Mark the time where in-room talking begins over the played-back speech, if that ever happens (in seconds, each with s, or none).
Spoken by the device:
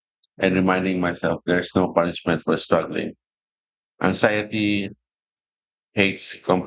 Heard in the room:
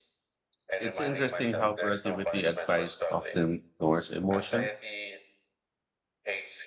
0.8 s